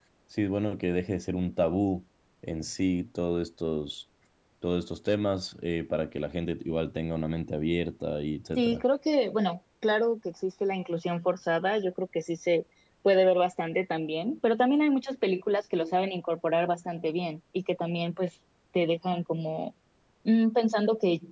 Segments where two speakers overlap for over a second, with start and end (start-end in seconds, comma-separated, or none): none